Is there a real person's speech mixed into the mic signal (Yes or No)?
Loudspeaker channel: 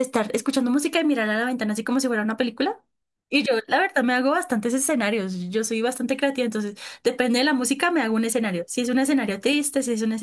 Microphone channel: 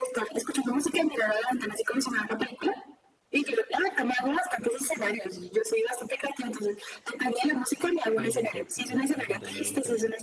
Yes